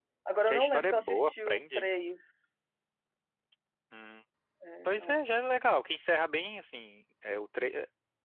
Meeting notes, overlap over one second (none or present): present